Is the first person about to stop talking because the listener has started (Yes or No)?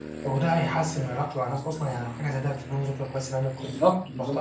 Yes